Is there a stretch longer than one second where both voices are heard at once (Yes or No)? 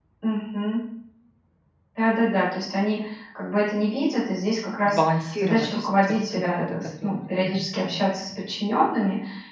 Yes